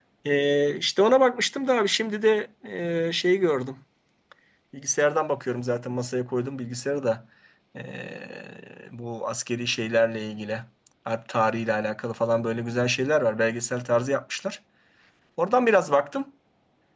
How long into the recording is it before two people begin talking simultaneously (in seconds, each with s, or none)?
none